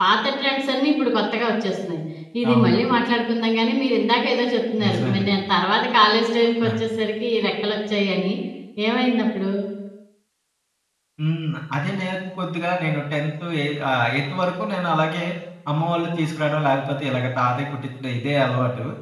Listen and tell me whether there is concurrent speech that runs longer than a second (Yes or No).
No